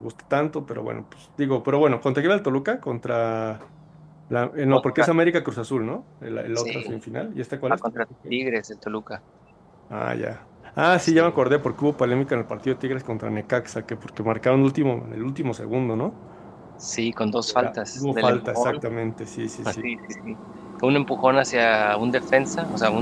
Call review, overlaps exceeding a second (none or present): present